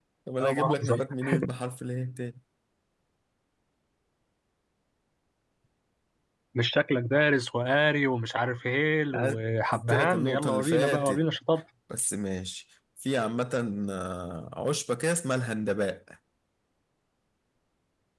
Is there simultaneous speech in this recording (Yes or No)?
Yes